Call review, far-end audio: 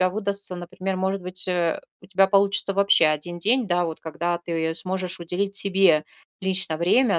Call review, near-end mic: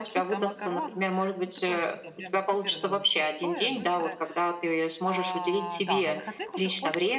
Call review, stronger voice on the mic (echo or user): echo